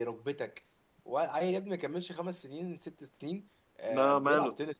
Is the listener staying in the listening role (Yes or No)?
Yes